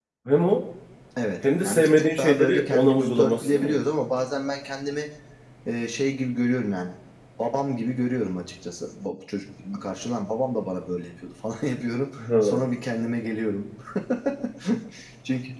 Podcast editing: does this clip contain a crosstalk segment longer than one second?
Yes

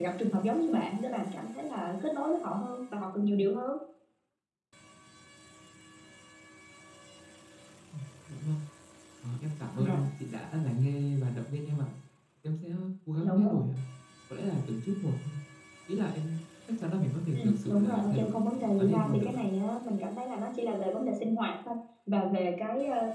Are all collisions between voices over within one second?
No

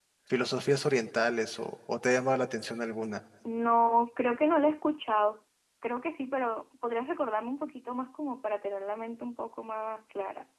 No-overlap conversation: Yes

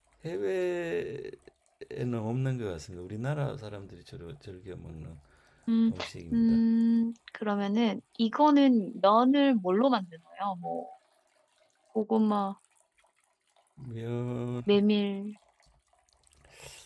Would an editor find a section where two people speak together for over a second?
No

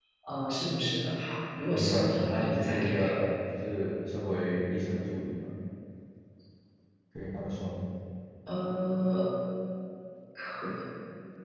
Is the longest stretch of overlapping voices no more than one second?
No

